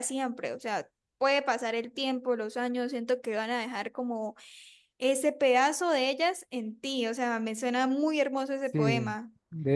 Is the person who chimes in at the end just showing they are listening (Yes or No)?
No